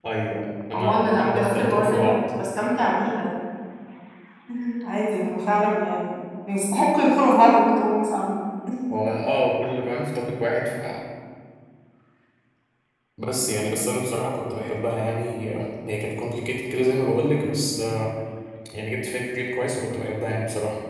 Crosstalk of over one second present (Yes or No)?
Yes